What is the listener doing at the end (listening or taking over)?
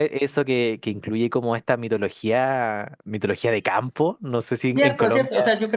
taking over